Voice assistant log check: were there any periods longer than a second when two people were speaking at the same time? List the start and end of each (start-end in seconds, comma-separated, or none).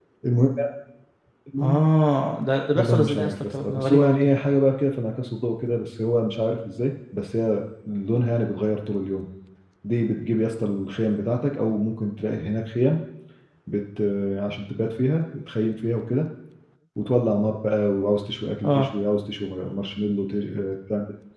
2.8-4.3